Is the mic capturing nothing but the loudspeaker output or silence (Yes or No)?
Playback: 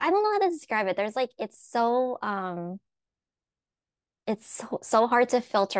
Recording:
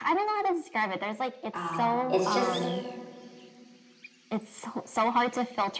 No